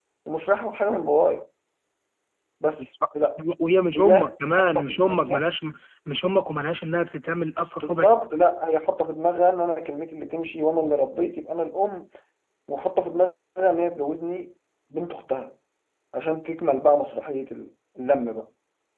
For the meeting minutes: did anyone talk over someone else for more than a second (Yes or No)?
Yes